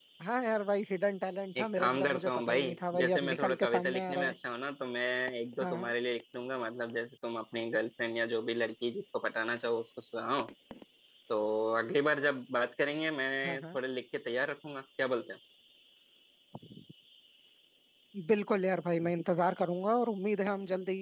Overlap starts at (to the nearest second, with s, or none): 2 s